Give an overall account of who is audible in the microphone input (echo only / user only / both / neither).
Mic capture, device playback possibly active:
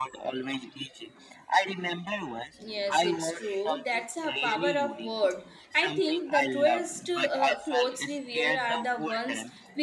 both